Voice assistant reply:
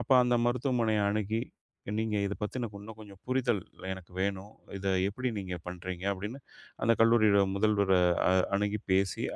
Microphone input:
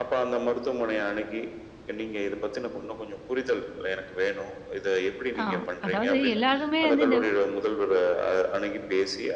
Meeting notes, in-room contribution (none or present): present